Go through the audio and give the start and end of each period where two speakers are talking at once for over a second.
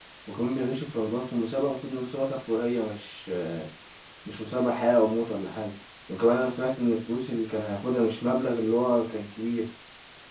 none

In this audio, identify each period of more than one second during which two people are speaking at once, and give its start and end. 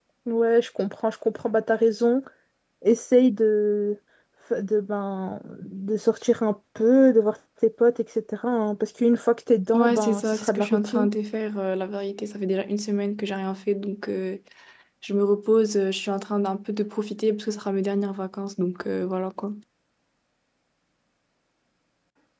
9.7-11.1

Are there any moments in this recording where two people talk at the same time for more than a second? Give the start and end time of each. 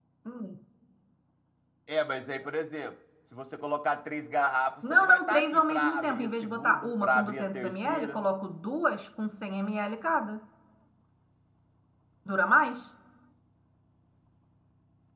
4.9-8.2

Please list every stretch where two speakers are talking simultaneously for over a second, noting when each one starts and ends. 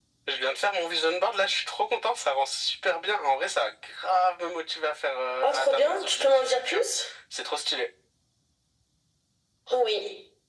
5.4-6.8

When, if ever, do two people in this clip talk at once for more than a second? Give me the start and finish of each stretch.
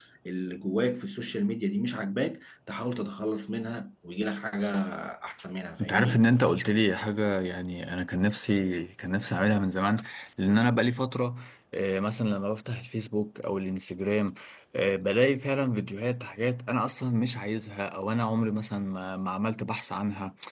none

